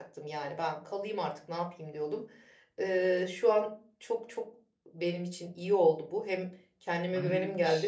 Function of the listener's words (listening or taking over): taking over